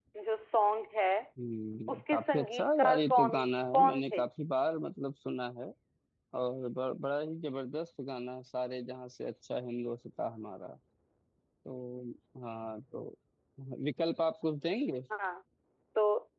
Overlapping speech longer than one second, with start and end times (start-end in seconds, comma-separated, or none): 1.9-3.4